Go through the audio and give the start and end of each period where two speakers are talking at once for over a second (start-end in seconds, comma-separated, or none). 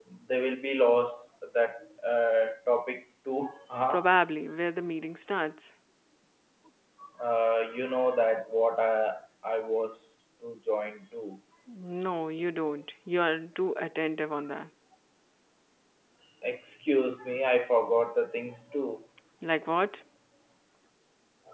none